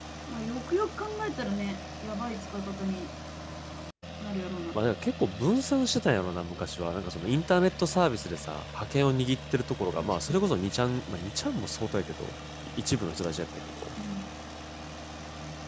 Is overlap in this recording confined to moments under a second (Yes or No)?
Yes